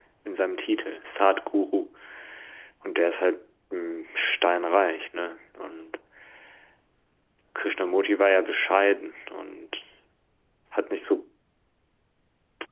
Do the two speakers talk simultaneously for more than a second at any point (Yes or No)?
No